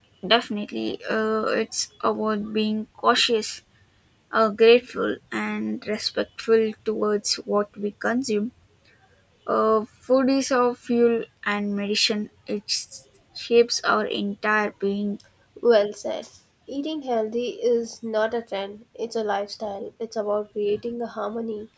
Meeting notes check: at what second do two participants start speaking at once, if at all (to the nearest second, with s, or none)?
none